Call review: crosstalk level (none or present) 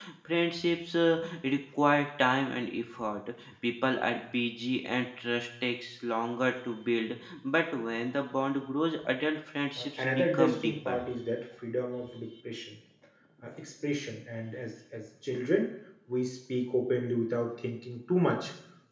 present